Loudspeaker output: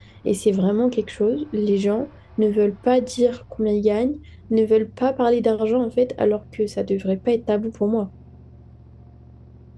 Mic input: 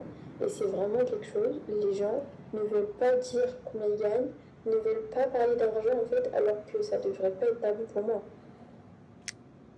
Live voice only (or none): none